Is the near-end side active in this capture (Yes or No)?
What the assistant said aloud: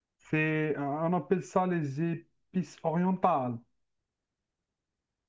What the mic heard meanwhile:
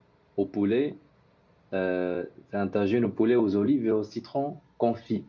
Yes